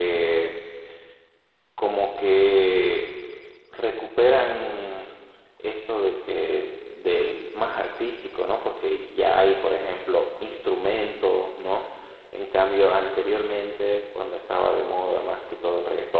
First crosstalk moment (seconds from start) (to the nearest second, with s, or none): none